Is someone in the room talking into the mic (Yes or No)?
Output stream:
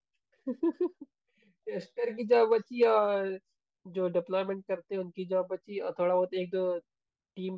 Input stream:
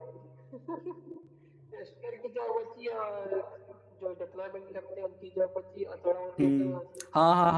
Yes